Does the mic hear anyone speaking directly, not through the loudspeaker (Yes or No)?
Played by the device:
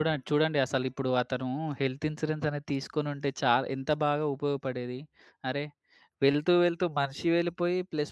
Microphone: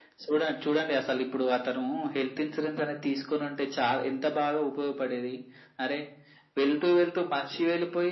No